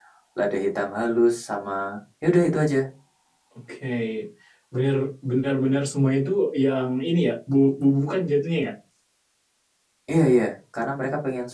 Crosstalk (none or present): none